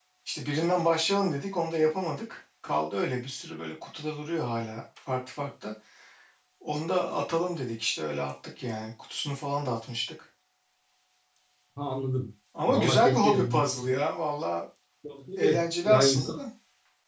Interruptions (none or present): present